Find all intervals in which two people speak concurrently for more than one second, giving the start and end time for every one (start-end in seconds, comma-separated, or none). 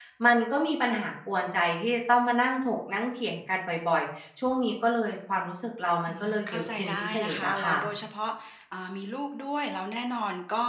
6.1-7.8